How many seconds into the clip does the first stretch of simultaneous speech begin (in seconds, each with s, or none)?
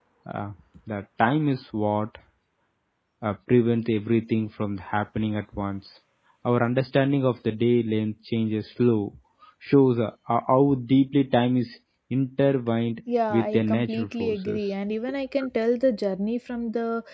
13.3 s